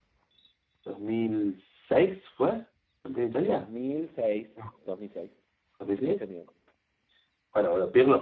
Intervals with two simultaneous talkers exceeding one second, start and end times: none

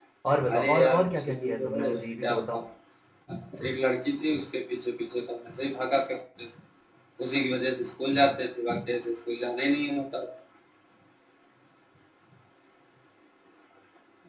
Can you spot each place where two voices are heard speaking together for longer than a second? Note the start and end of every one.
0.5-2.6

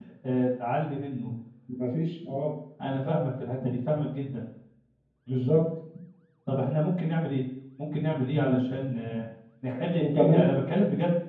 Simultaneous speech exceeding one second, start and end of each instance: none

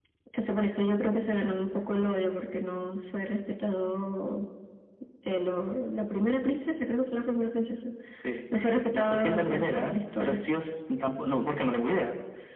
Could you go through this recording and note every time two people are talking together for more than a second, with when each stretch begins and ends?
8.9-10.4

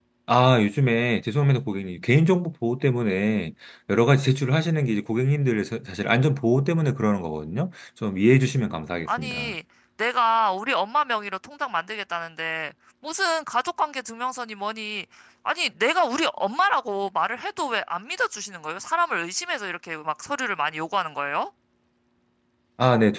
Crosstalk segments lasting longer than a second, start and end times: none

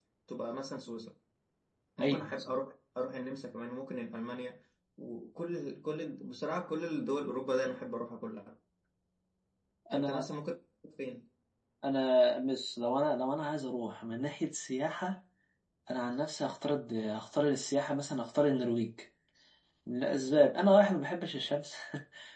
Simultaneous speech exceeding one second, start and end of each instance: none

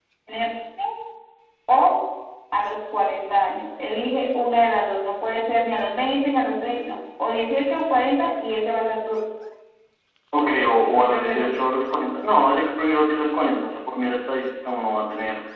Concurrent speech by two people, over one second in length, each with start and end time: 10.4-11.6

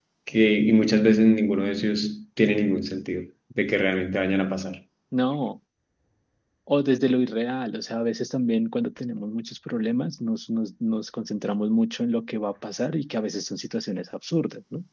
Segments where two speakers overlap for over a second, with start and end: none

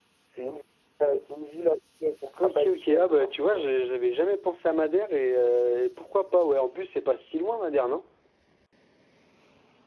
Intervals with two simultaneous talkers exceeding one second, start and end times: 2.4-3.6

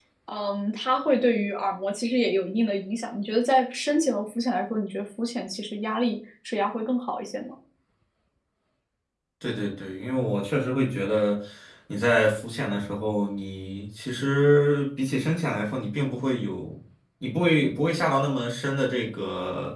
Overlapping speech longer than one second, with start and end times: none

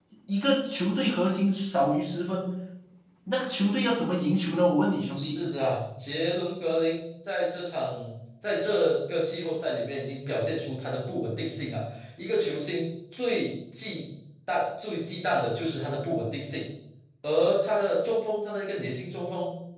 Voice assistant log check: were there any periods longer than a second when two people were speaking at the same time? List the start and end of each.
none

